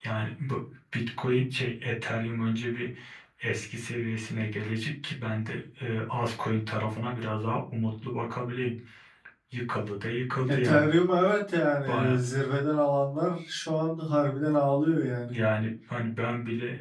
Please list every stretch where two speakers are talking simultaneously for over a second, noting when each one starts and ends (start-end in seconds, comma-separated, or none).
none